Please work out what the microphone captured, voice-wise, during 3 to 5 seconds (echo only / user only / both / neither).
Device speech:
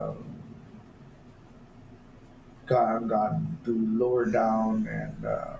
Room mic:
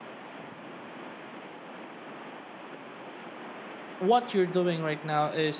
user only